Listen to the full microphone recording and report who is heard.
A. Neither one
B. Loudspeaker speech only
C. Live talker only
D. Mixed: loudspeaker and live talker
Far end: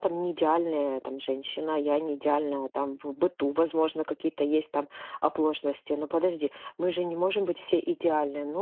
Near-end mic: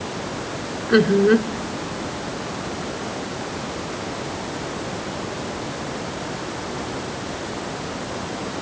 C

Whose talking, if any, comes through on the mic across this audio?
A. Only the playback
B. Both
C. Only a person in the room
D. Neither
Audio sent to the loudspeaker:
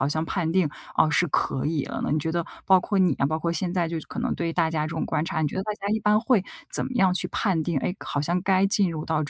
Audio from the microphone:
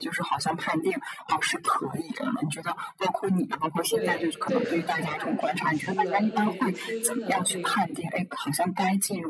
B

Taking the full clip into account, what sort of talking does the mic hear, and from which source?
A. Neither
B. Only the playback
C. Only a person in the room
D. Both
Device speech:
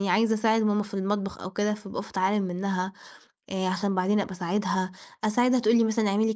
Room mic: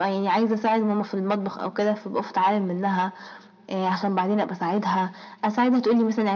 B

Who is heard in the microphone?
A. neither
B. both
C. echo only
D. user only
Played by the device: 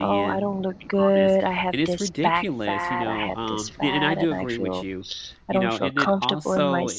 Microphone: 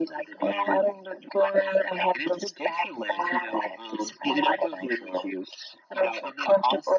C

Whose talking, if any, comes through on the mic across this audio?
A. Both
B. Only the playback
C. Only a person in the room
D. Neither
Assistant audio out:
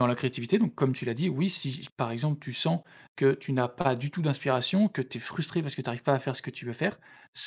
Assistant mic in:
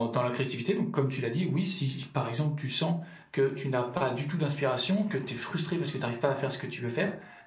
B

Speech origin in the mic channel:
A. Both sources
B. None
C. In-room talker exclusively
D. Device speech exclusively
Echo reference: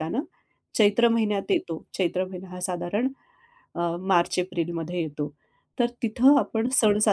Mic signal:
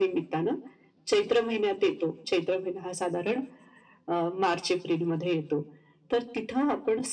D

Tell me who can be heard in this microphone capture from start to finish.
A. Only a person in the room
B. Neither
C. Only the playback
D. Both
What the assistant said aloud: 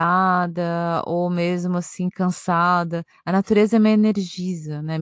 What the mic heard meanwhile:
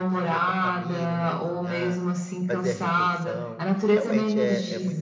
D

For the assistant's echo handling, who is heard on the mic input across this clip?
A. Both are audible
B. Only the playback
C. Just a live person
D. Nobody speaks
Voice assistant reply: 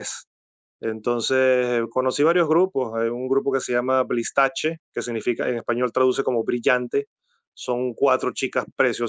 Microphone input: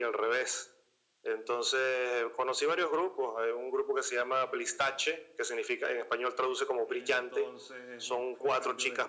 A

